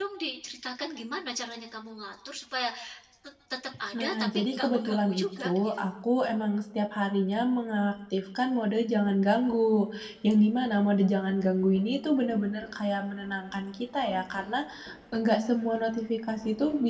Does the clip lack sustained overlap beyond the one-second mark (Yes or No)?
No